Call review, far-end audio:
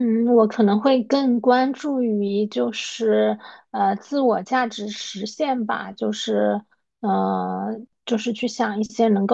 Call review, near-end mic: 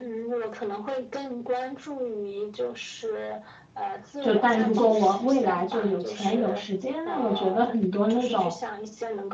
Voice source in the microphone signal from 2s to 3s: echo only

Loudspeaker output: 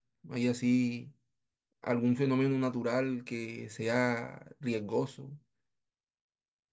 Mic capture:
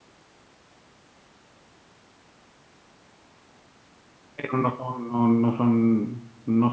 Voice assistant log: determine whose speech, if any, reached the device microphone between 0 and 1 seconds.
neither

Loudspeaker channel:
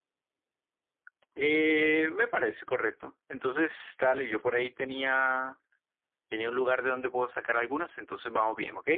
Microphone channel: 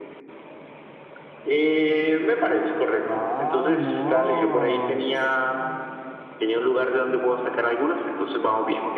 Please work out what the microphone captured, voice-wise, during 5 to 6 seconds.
both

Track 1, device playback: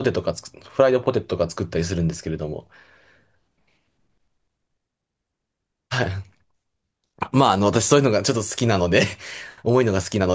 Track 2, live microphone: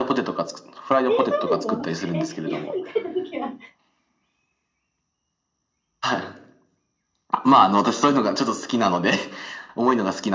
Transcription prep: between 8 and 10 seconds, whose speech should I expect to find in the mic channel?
echo only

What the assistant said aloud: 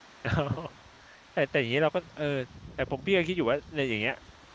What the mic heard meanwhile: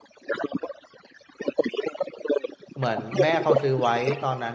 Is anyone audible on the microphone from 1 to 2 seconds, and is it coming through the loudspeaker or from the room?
echo only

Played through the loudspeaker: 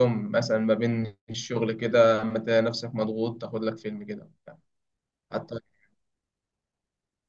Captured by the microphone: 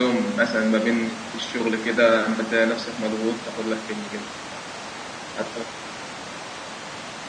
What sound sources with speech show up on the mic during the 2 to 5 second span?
echo only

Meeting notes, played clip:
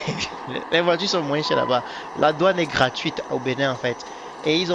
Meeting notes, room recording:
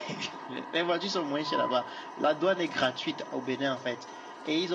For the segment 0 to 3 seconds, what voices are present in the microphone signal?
echo only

